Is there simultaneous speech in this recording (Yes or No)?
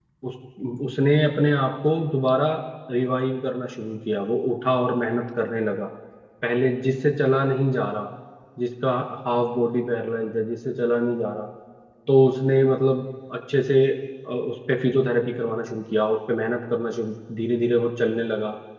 No